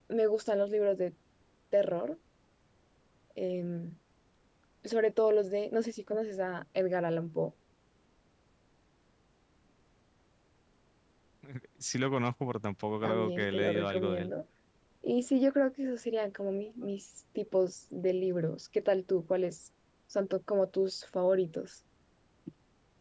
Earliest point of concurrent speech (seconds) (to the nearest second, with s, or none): 13 s